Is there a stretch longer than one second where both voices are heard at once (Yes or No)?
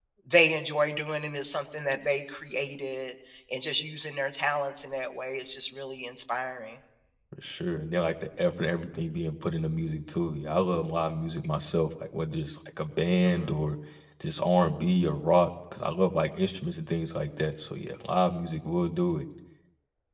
No